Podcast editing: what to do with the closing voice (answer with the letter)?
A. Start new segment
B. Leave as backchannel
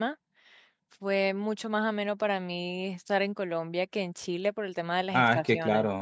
A